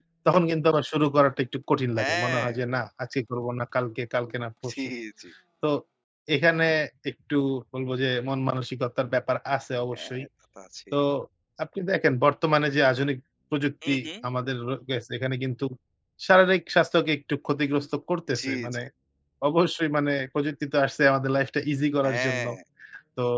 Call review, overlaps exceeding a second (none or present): none